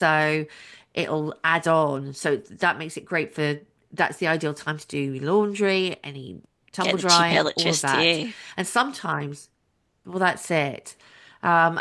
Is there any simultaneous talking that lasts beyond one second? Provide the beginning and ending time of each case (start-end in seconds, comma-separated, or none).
6.8-8.1